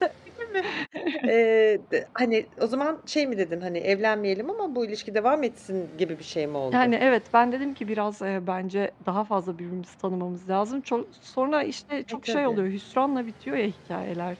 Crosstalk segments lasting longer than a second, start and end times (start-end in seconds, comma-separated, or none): none